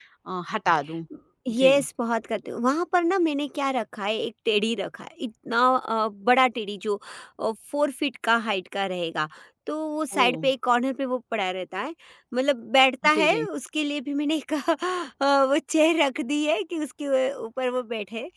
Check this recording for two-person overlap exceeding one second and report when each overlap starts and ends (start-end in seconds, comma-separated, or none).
none